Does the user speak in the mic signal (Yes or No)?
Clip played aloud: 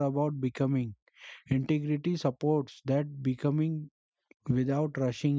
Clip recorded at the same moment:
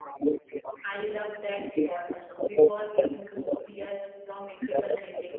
Yes